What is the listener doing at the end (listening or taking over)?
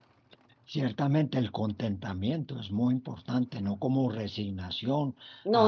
listening